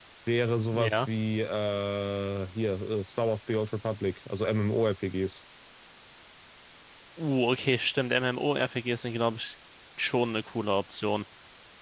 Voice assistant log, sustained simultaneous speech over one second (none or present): none